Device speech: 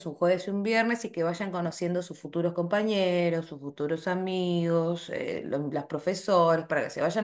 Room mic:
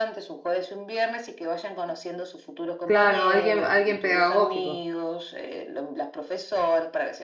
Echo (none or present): present